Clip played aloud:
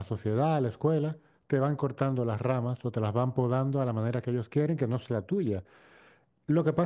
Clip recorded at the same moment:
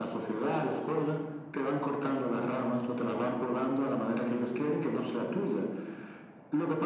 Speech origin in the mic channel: echo only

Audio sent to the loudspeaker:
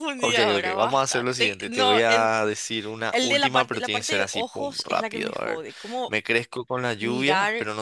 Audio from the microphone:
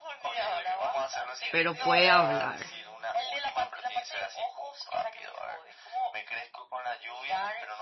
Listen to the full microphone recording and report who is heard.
both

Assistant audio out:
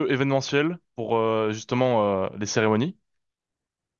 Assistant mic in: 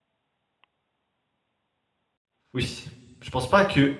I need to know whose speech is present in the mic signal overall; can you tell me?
user only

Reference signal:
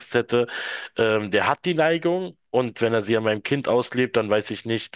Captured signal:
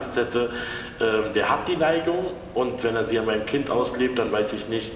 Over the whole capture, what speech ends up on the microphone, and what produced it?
echo only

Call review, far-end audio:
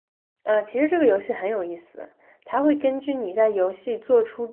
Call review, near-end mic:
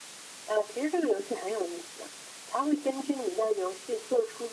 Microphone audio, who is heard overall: echo only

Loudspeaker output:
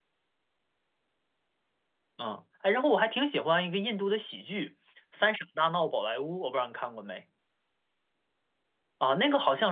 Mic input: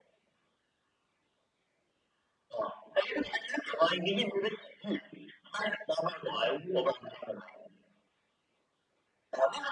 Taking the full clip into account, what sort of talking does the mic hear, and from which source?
echo only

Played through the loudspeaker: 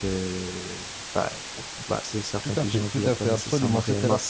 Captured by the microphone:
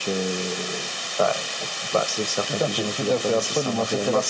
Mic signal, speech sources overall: echo only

